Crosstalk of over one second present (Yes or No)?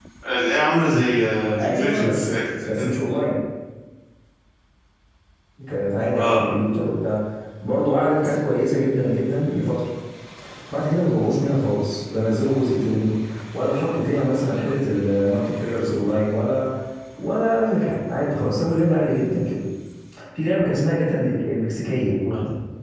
Yes